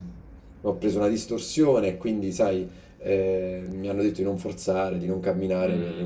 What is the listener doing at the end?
listening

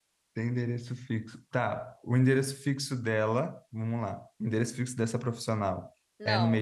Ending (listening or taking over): taking over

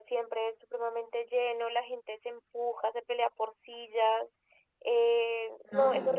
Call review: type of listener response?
listening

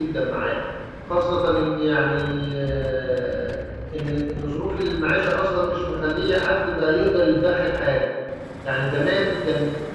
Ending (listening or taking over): listening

